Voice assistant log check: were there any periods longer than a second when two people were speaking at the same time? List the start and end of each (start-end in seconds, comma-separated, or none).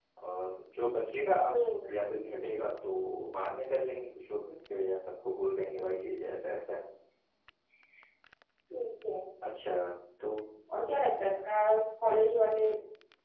none